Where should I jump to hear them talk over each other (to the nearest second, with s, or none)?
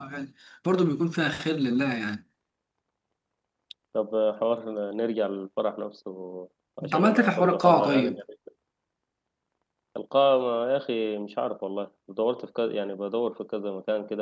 7 s